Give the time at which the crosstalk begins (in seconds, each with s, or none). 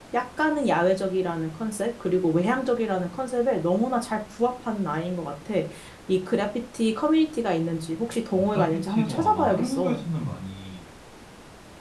8.3 s